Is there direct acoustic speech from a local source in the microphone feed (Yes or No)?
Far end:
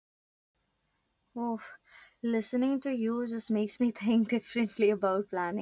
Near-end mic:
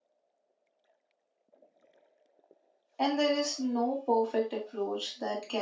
Yes